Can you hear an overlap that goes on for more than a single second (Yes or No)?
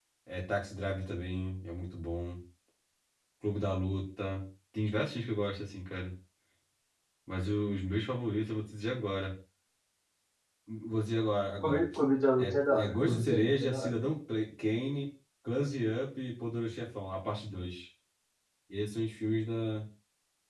Yes